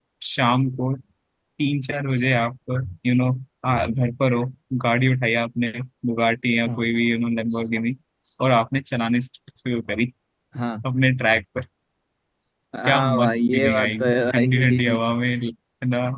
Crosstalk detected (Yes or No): Yes